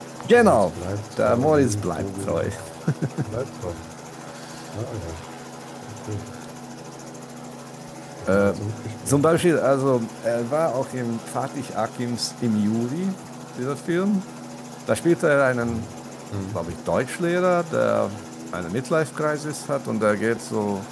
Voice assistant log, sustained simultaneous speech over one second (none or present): present